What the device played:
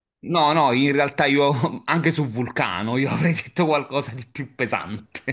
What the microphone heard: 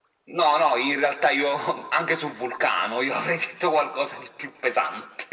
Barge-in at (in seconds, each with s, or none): none